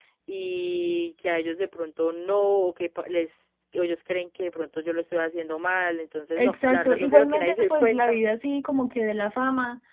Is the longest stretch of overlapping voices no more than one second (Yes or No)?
No